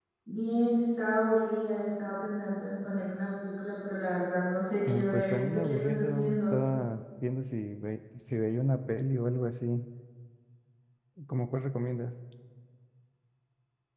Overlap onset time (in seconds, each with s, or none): 4.9 s